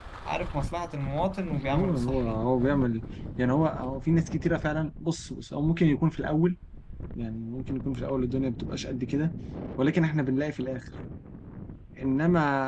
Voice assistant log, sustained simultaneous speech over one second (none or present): present